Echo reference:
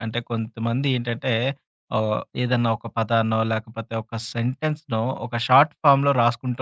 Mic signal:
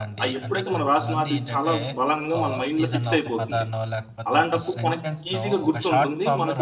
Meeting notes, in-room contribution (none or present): present